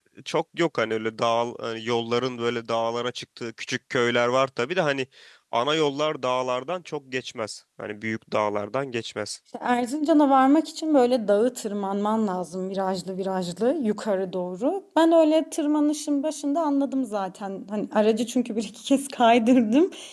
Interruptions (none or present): none